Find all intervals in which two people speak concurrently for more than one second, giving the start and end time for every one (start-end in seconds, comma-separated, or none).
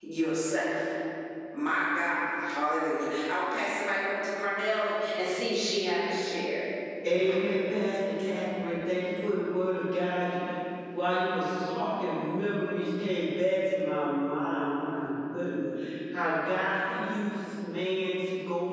none